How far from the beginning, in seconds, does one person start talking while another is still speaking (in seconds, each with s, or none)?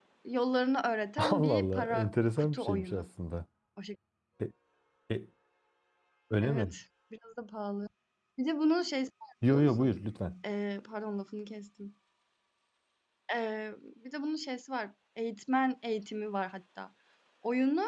1.2 s